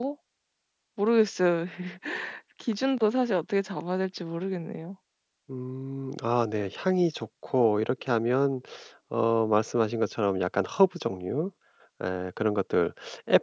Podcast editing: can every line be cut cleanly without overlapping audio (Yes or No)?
Yes